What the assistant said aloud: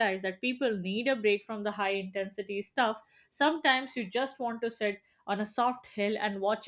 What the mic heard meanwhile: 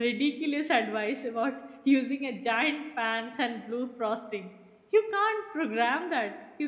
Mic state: user only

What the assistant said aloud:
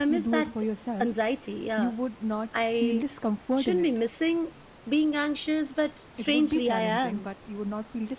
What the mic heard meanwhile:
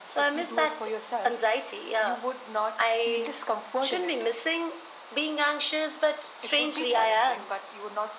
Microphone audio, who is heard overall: echo only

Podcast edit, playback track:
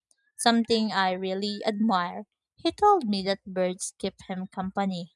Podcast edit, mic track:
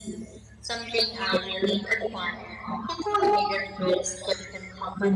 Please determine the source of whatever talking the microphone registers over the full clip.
echo only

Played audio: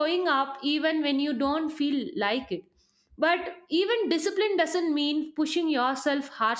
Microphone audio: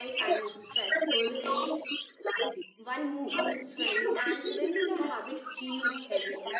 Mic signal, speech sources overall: both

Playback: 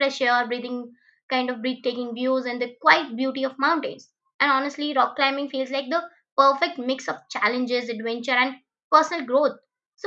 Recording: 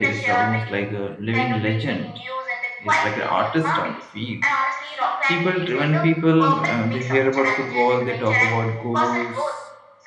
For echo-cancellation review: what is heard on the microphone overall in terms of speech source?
both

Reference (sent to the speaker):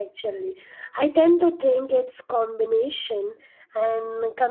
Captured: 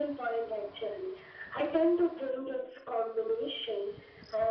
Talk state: echo only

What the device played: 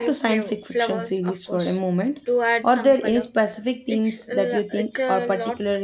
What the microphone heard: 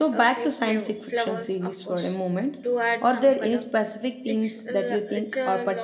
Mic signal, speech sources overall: echo only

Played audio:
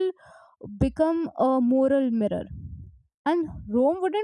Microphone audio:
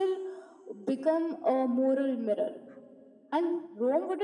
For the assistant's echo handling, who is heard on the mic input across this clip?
echo only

